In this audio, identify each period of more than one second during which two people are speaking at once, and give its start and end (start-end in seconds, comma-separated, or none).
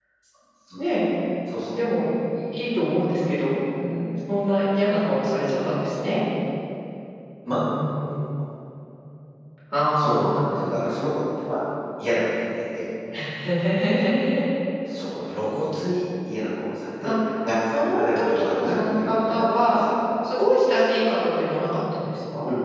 17.7-19.8